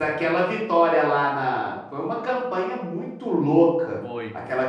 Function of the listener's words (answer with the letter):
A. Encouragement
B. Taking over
A